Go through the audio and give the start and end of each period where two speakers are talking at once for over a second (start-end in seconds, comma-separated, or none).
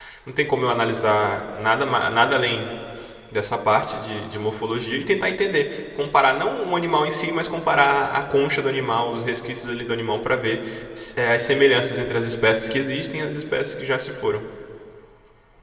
none